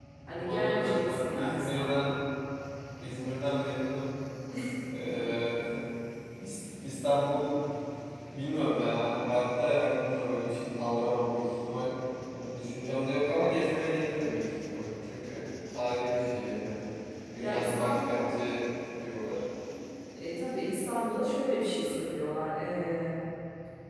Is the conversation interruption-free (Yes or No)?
No